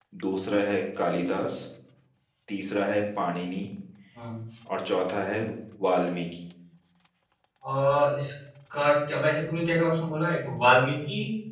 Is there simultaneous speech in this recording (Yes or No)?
No